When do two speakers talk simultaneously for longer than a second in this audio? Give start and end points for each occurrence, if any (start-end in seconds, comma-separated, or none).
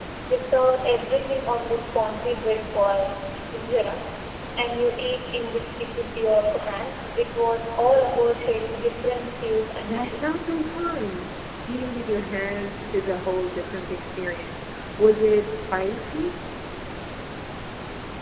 none